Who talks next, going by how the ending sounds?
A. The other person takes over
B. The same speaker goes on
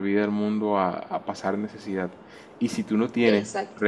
B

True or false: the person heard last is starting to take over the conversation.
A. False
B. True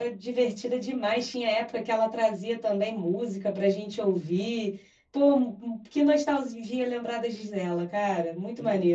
B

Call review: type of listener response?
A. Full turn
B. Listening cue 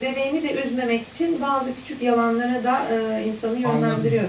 A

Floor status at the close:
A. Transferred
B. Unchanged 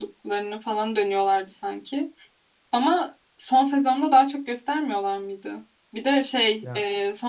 B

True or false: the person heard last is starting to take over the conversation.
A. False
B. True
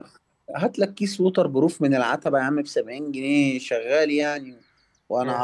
A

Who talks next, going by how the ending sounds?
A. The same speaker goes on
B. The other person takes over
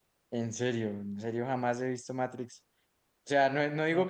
A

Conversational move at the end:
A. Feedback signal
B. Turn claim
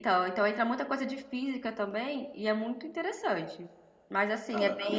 A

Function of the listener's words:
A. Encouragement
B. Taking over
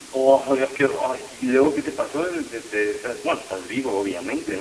B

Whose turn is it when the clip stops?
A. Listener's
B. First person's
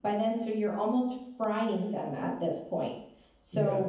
B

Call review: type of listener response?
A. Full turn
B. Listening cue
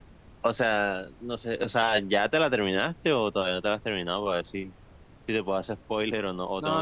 A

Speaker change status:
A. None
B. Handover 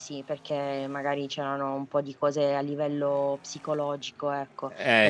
A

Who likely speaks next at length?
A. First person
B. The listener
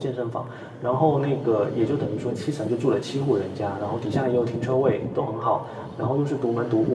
A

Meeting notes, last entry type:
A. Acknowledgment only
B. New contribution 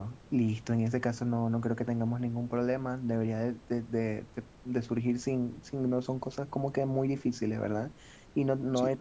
A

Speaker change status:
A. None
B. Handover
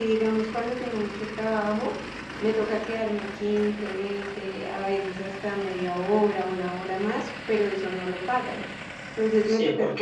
B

